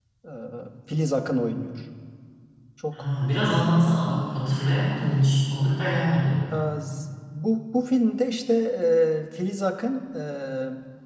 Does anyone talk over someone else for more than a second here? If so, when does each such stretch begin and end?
none

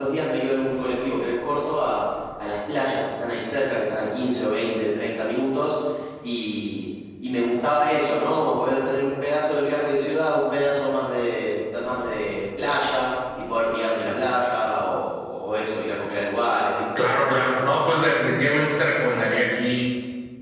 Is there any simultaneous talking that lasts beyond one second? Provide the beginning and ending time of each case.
none

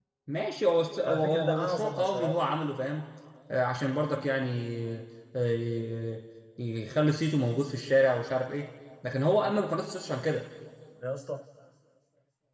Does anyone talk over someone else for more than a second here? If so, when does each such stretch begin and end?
1.0-2.4

